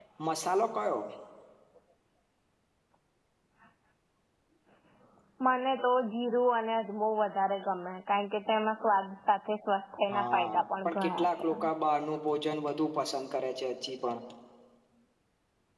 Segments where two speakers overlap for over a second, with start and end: 10.1-11.6

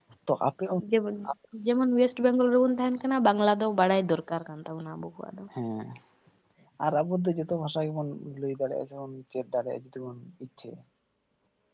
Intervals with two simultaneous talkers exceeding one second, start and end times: none

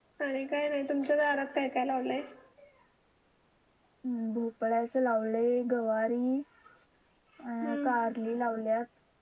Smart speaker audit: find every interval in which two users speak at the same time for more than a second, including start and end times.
none

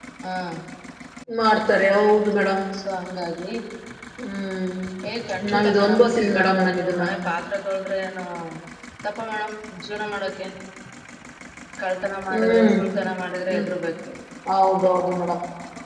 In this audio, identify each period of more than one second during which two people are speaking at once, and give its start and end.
5.5-7.0

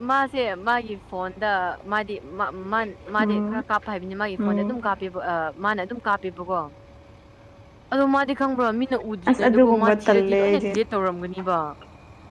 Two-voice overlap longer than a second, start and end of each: 9.3-10.6

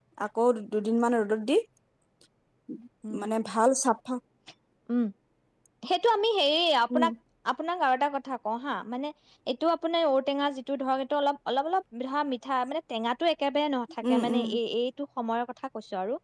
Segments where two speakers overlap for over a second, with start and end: none

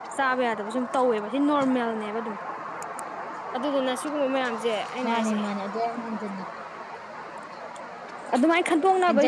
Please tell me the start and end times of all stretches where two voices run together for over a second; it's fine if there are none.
none

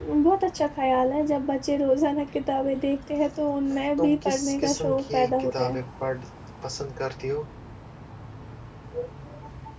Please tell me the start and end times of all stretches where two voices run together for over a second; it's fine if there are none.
4.0-5.8

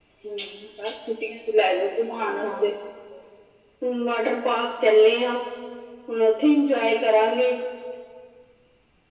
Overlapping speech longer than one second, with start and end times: none

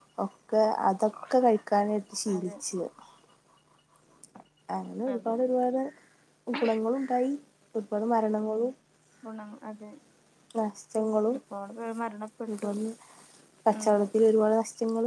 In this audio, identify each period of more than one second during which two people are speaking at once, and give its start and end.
none

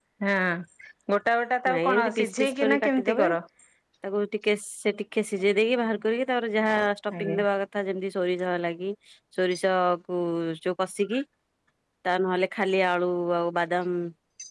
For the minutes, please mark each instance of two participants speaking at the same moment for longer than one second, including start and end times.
1.7-3.2

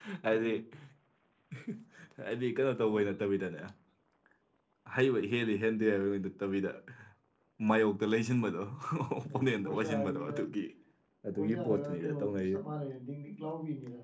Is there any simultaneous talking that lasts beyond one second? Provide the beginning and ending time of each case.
9.2-10.4, 11.3-12.6

